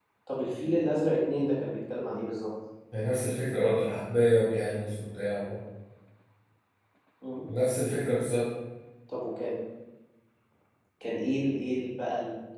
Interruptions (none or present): none